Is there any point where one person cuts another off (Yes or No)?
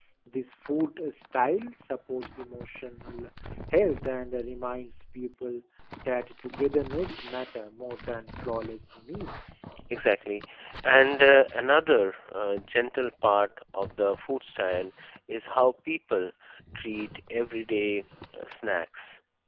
No